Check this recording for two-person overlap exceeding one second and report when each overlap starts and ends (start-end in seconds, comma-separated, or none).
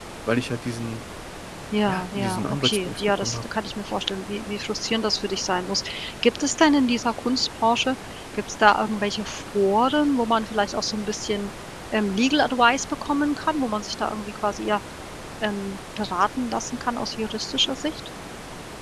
1.9-3.4